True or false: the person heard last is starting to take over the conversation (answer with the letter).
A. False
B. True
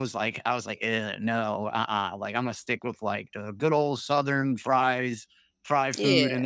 A